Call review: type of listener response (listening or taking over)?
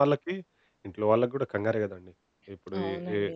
listening